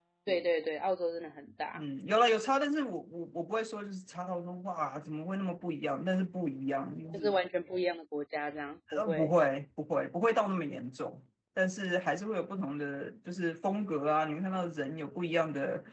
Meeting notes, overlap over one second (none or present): none